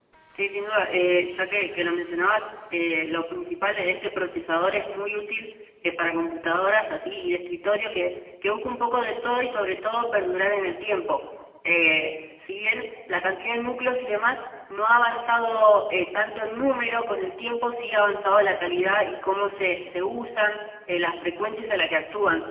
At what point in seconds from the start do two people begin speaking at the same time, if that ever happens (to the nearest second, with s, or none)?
none